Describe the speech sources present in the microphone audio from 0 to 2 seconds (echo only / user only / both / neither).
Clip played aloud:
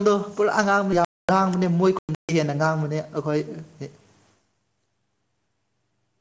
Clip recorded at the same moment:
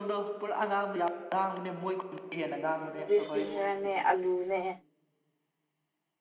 echo only